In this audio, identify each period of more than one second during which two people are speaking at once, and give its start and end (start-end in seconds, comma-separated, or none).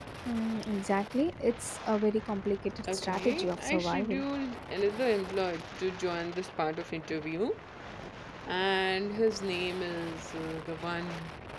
2.9-4.2